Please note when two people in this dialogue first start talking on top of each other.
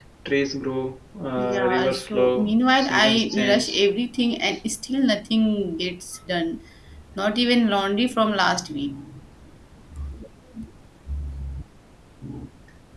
1.4 s

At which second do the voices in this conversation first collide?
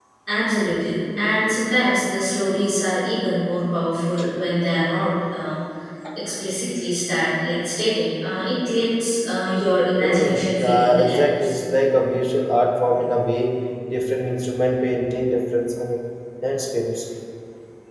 10.0 s

